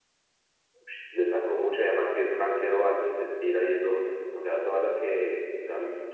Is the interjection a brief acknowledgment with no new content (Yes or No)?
Yes